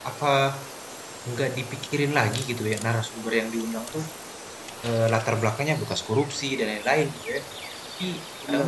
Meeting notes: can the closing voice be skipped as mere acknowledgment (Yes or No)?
Yes